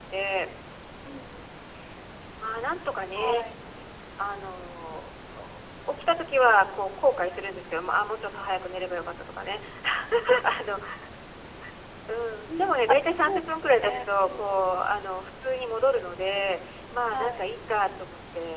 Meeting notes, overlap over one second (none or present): present